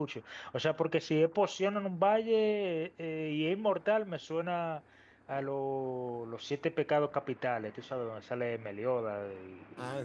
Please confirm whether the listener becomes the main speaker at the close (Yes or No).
Yes